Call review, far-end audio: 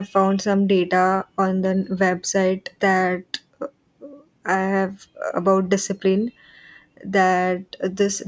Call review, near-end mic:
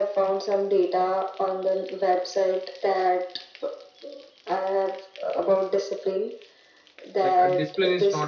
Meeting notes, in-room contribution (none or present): present